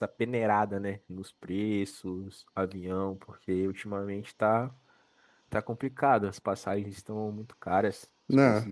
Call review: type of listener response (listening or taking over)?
taking over